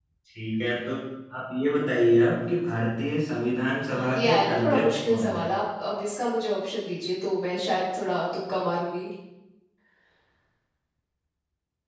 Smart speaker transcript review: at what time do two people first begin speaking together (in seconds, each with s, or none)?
3.8 s